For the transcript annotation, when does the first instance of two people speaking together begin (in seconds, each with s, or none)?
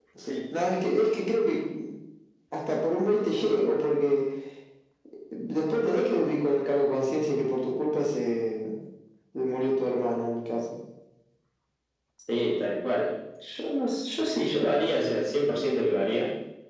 none